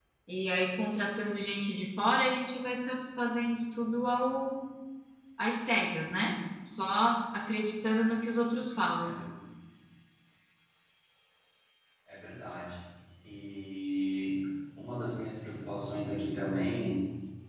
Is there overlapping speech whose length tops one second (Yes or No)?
No